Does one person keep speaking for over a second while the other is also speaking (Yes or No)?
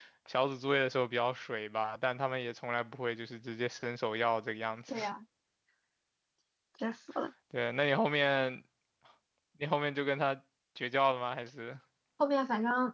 No